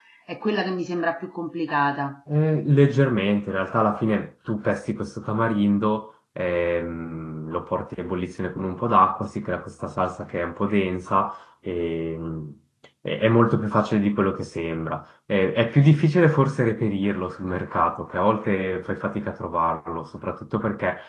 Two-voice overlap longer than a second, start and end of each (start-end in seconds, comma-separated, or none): none